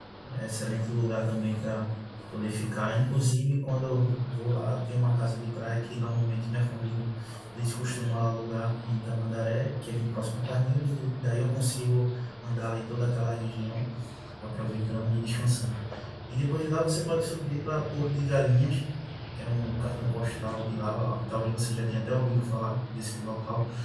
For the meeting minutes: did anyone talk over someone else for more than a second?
No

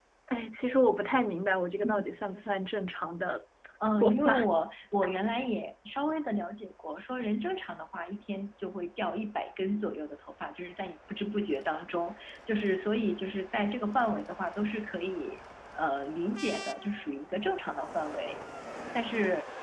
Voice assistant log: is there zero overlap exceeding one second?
Yes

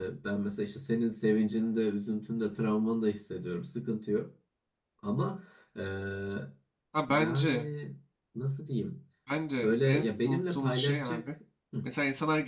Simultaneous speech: Yes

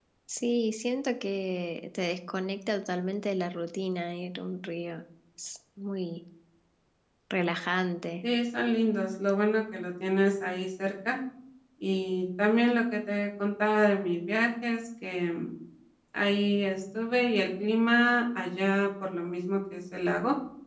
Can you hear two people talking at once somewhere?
No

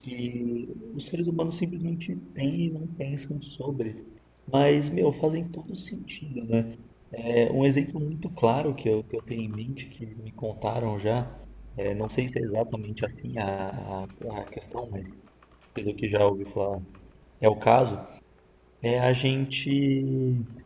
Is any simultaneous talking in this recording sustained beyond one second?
No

